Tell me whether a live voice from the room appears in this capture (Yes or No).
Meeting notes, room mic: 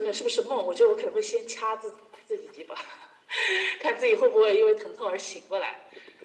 No